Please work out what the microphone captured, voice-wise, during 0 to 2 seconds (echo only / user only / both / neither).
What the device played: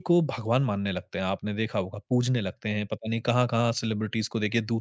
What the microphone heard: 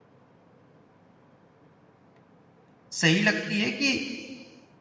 neither